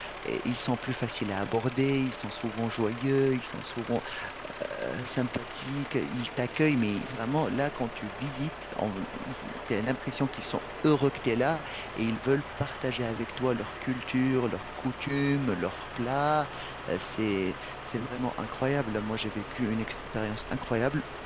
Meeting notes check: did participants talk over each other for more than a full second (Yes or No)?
No